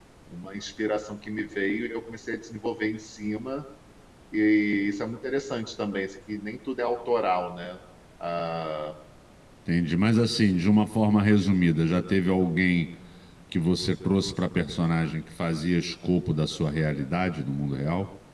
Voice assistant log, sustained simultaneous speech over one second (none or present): none